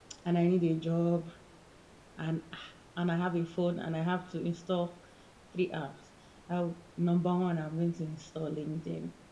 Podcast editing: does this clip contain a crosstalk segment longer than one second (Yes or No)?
No